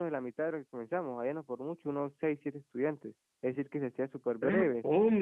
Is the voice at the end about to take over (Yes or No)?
Yes